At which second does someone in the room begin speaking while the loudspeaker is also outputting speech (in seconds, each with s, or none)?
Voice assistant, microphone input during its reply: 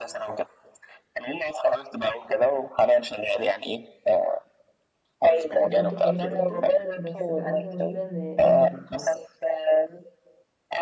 5.6 s